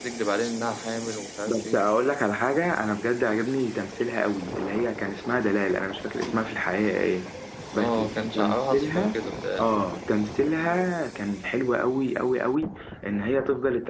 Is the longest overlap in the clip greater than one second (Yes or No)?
Yes